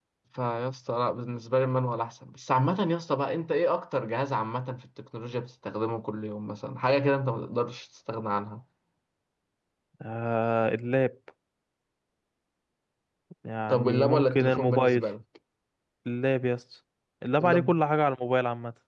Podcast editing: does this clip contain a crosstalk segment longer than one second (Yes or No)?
Yes